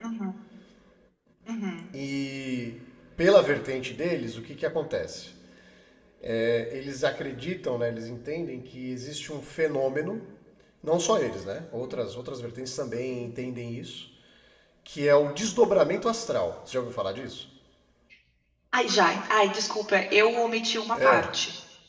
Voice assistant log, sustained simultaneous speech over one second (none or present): none